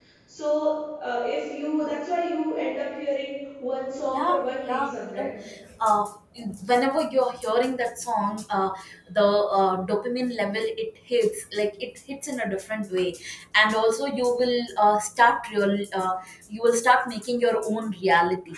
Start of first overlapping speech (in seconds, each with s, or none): 4.1 s